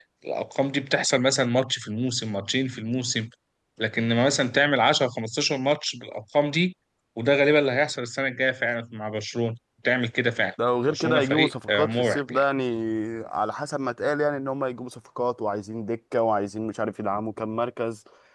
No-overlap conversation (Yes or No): No